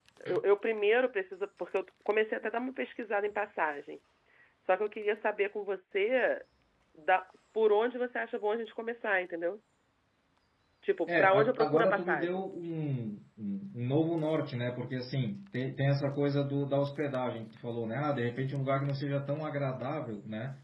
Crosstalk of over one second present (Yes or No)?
Yes